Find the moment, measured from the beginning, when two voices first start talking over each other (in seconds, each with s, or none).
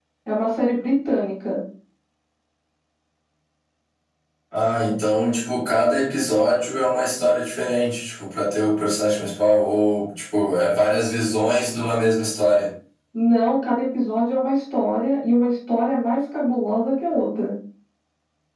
none